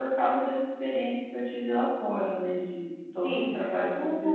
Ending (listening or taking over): taking over